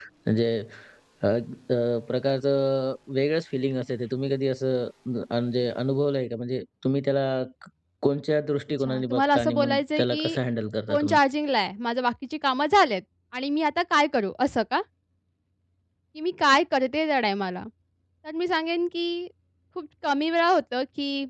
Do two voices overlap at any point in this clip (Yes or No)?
Yes